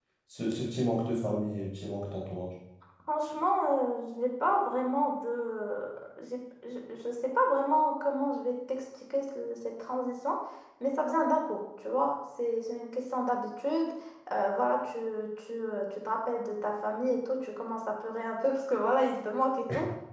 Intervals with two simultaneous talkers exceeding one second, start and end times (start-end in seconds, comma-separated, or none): none